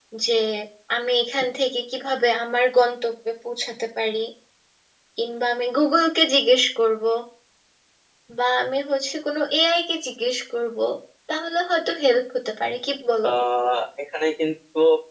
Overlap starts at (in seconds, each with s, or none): none